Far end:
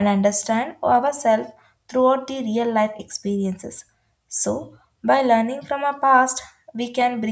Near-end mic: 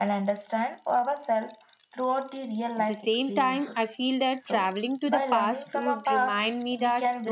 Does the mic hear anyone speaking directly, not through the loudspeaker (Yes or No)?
Yes